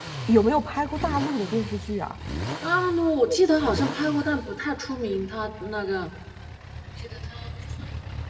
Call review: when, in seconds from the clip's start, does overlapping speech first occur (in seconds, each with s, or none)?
none